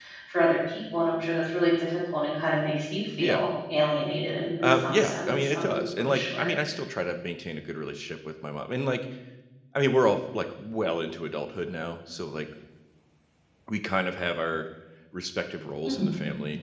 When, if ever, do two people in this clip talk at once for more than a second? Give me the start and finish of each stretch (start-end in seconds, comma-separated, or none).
4.6-6.5